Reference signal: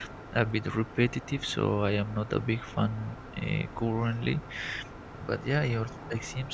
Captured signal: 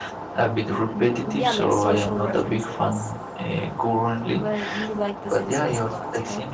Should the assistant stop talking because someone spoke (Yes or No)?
Yes